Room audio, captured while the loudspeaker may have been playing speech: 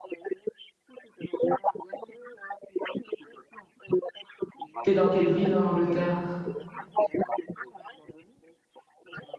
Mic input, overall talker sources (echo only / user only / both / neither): both